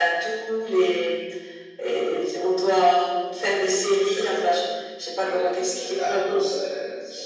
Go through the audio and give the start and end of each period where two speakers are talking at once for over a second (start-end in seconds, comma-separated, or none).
3.4-4.6, 5.1-6.5